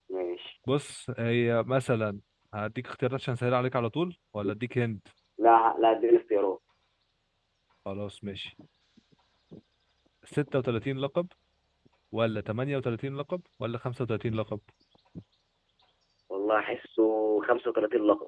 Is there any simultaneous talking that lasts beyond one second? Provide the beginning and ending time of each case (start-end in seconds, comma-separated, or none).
none